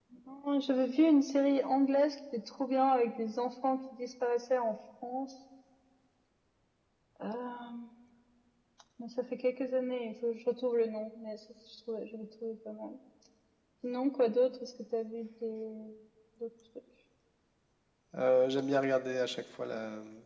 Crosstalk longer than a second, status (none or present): none